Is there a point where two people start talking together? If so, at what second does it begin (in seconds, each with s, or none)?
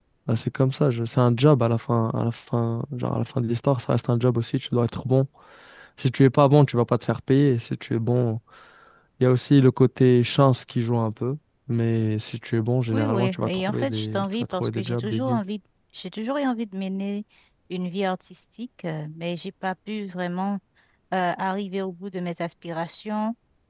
12.9 s